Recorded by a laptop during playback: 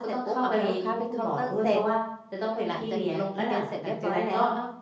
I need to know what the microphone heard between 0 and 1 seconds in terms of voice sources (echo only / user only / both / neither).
both